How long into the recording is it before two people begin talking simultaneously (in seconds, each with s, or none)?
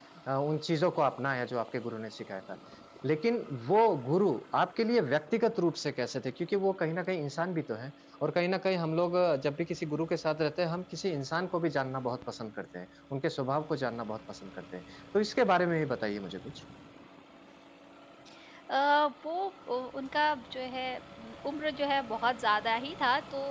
none